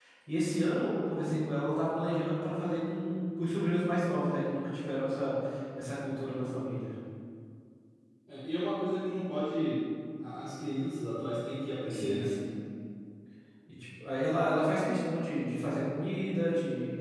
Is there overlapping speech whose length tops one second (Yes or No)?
No